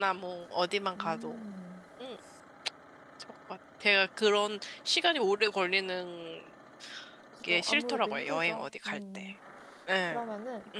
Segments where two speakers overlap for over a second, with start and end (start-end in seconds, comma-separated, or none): 7.5-9.3